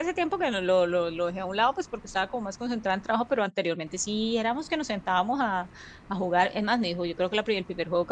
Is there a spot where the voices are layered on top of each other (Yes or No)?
No